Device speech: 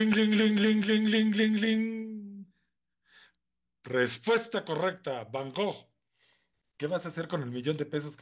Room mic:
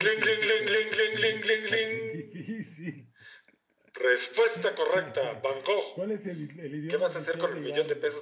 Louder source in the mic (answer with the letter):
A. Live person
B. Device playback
B